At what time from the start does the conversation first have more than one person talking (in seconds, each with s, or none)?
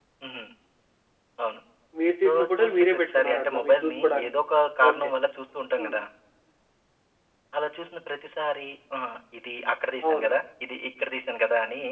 2.2 s